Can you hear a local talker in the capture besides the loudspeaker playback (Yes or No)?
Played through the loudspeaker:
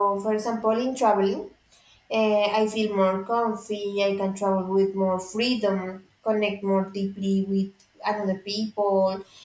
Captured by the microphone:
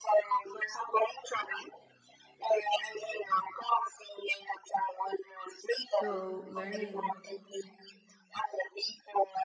Yes